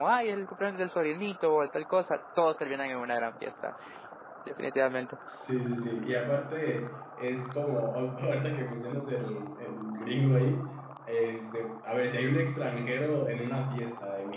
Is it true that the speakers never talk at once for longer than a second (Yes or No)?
Yes